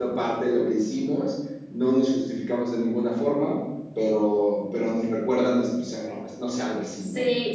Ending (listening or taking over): taking over